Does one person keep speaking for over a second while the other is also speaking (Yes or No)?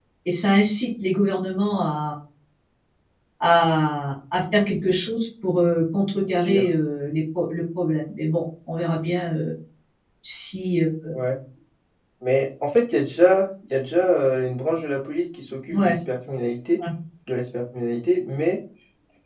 No